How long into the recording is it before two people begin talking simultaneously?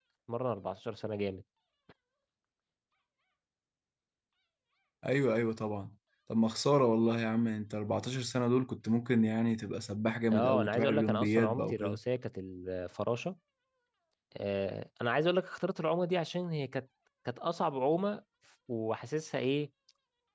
10 s

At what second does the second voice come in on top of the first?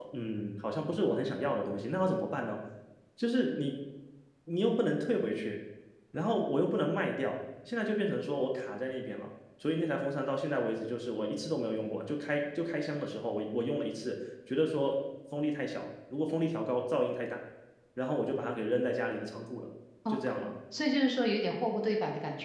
none

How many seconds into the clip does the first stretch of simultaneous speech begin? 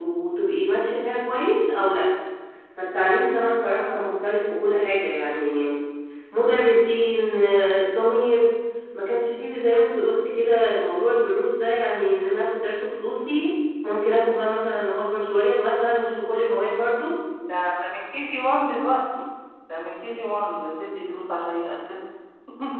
none

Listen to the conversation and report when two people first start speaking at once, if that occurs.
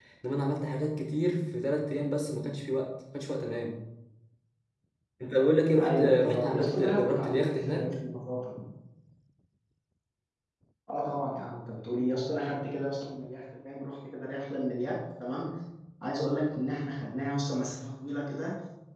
6 s

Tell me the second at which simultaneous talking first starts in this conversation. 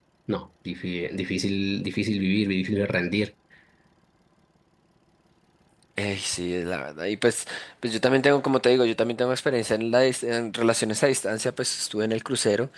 none

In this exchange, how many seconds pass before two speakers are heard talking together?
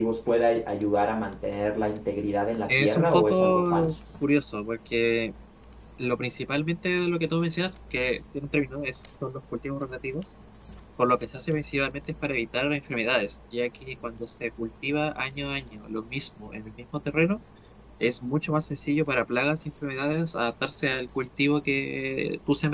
3 s

